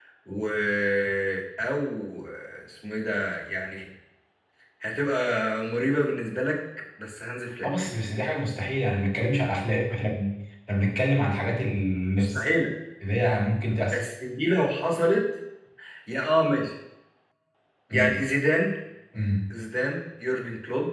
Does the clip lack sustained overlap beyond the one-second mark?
Yes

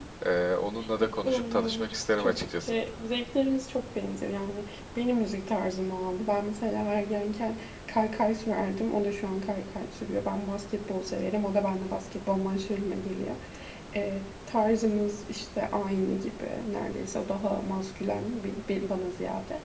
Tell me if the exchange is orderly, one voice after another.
No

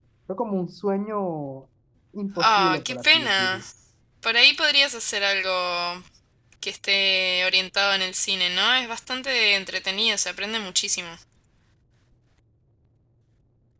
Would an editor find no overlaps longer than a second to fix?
No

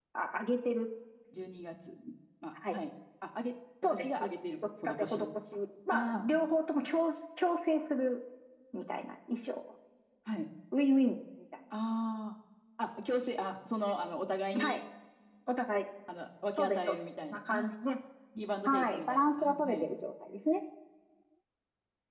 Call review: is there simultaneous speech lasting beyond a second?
Yes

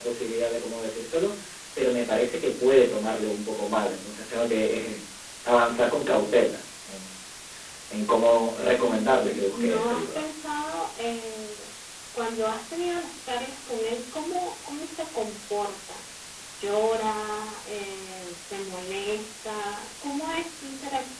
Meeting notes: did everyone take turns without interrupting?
No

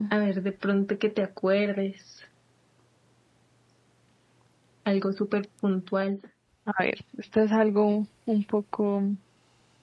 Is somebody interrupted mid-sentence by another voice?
No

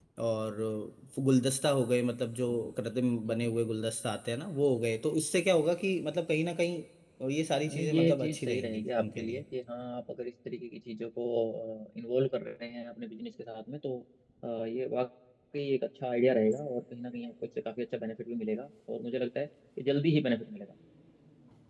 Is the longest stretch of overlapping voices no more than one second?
No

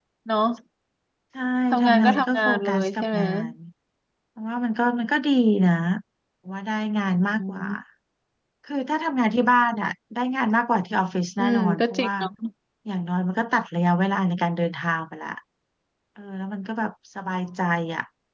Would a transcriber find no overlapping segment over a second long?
No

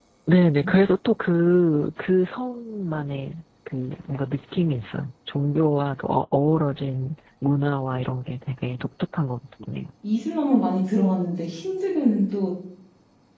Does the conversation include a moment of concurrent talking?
No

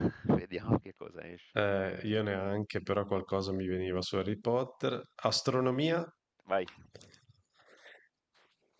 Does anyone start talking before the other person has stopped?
No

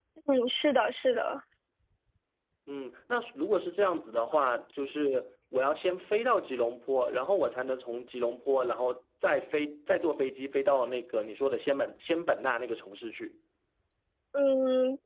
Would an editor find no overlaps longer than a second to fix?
Yes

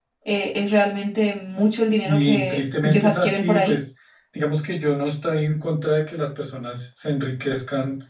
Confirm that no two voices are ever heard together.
No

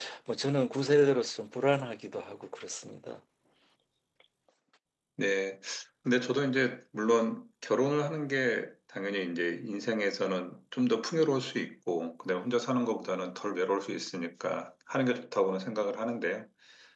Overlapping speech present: No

